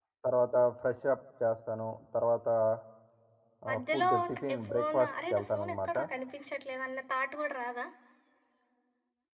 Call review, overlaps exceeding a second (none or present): present